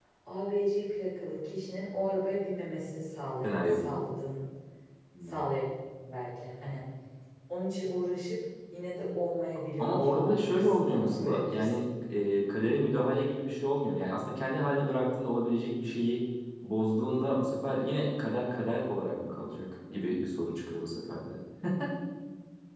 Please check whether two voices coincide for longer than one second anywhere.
Yes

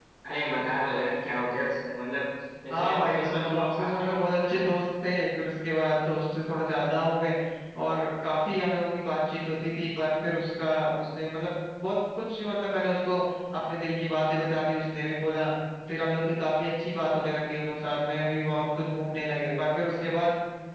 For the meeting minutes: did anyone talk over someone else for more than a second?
Yes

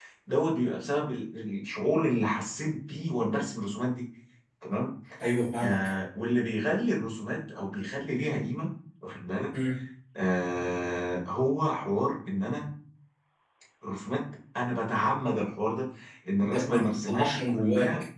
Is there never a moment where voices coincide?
No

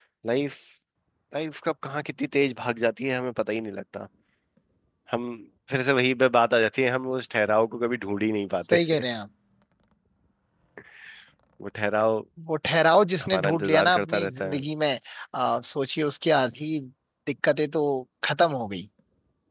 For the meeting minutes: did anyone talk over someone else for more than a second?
Yes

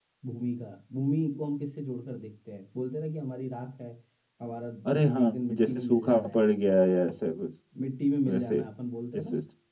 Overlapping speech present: Yes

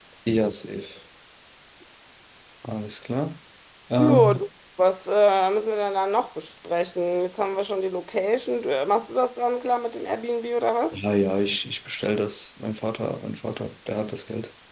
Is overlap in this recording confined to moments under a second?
Yes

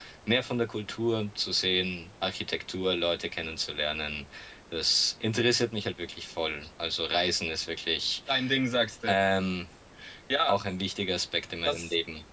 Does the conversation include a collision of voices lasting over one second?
No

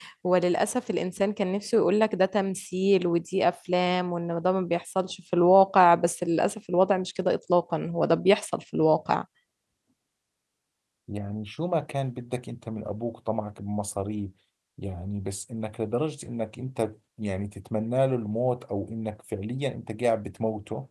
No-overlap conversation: Yes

